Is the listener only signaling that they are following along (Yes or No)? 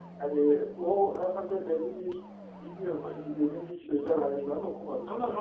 No